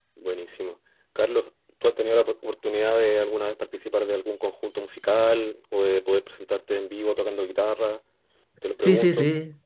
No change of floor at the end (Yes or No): No